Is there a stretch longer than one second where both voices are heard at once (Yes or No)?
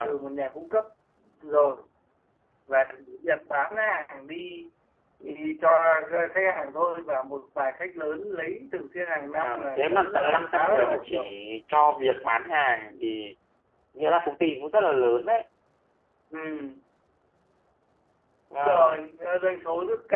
Yes